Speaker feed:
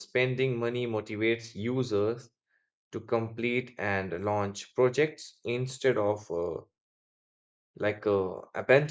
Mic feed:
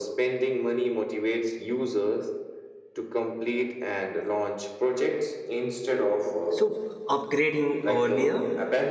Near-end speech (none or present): present